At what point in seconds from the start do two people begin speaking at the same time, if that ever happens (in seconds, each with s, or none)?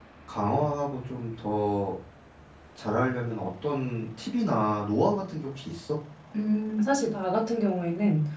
none